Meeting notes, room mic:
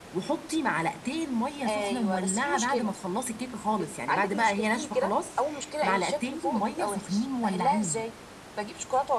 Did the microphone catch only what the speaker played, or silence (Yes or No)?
Yes